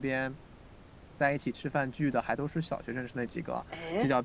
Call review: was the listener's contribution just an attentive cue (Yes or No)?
Yes